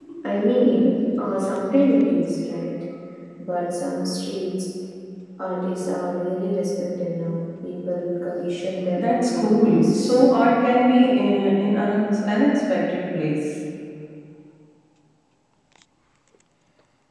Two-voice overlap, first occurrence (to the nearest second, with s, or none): 9 s